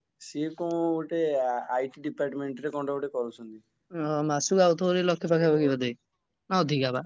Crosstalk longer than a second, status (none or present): none